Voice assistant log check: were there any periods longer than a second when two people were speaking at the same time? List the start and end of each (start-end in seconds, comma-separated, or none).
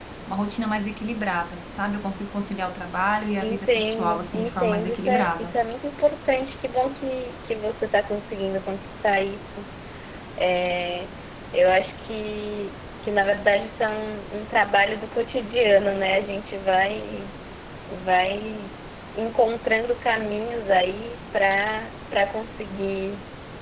3.4-5.5